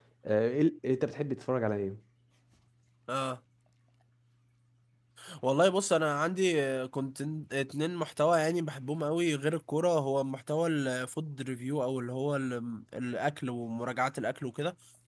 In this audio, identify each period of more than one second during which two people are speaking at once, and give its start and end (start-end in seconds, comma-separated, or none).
none